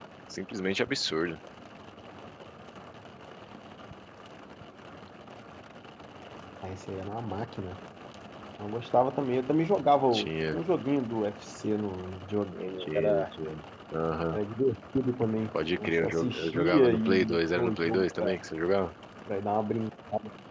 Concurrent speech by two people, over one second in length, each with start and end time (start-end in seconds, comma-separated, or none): 15.8-18.1